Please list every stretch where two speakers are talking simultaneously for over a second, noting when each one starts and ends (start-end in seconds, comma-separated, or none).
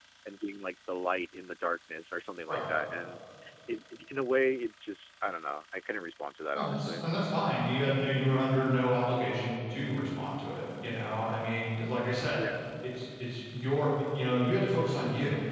none